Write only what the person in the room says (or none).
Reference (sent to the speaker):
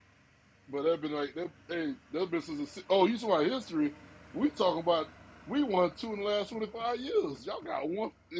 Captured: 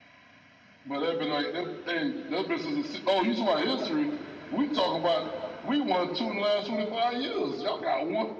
none